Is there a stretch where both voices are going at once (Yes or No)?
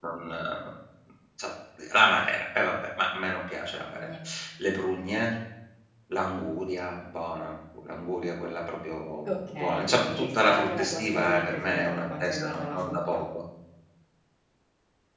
Yes